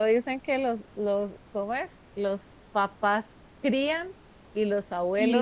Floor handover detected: Yes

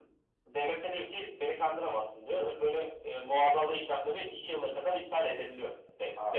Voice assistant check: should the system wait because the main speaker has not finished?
No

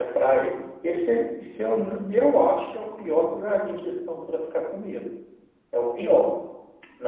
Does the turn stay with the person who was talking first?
Yes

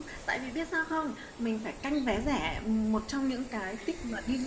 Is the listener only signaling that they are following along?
Yes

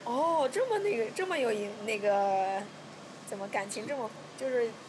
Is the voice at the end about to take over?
No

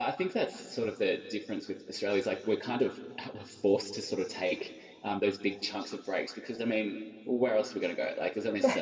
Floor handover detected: No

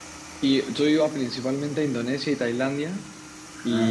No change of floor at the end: Yes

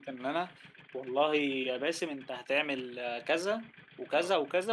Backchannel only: Yes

